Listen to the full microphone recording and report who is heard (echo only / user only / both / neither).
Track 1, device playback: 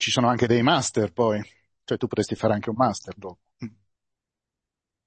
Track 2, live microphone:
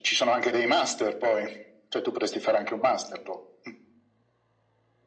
echo only